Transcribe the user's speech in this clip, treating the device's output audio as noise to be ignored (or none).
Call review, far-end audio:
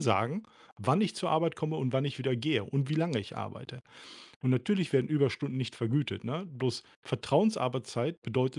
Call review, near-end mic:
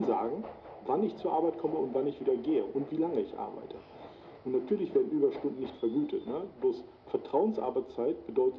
none